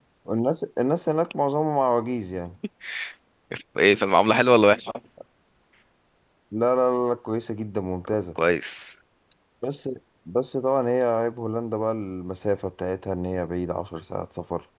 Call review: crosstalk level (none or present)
none